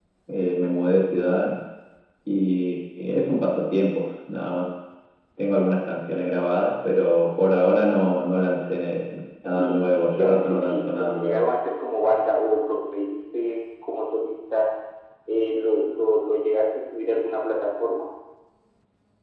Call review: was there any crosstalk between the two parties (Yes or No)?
Yes